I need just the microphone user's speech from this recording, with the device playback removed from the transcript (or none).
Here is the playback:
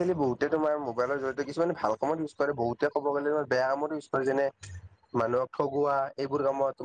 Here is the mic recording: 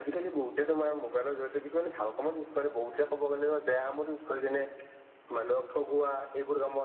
none